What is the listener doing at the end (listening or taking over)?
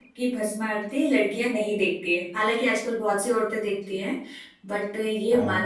listening